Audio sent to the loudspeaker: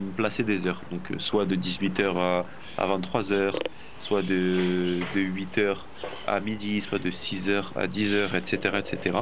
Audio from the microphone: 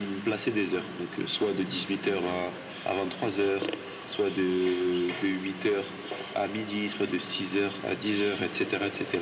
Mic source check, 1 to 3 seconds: echo only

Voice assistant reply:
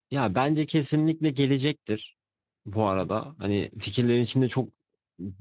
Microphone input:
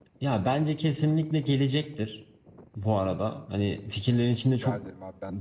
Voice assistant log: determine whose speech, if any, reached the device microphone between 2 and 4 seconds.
echo only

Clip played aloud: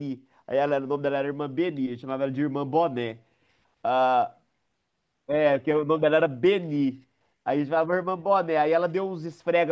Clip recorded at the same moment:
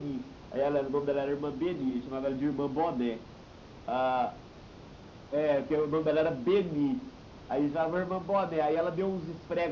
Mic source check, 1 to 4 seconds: echo only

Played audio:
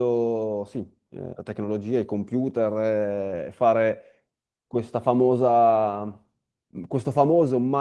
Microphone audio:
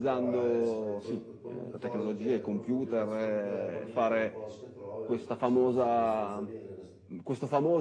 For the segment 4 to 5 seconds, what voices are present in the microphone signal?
both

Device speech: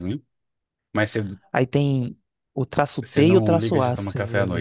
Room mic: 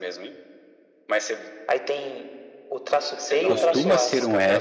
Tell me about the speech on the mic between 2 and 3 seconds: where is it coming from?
echo only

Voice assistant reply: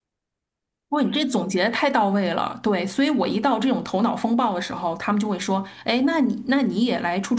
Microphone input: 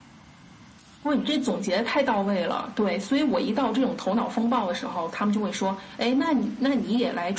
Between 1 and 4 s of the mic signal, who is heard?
echo only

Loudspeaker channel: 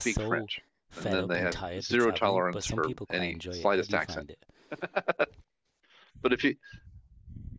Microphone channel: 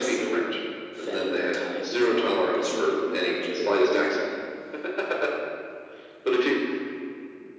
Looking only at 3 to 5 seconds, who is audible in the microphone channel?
echo only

